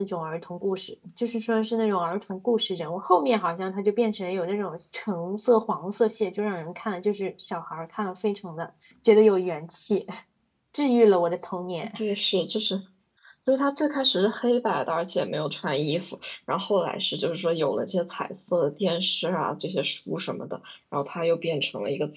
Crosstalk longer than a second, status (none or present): none